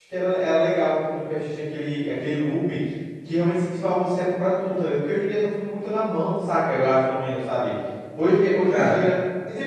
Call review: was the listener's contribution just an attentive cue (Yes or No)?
Yes